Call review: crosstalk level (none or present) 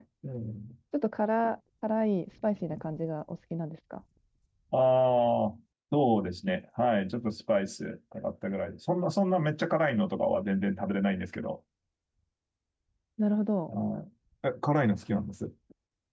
none